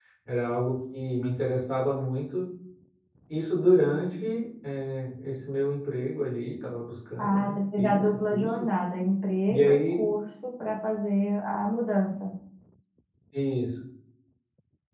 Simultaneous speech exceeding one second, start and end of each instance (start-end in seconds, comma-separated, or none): 7.2-8.7